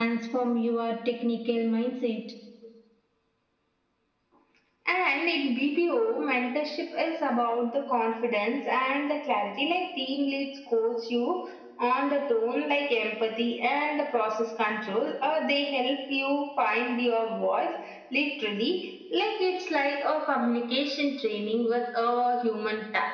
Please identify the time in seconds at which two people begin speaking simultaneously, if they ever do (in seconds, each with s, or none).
none